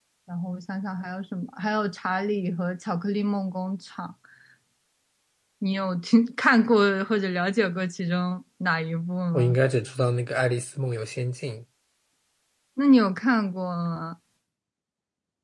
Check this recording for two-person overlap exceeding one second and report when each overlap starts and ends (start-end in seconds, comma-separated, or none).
none